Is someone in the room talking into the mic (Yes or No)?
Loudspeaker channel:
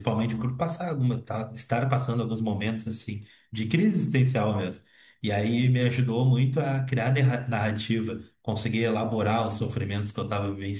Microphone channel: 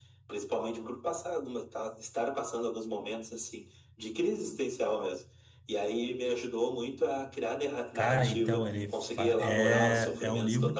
Yes